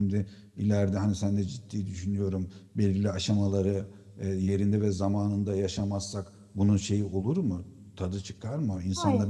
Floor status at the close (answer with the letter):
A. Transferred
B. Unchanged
A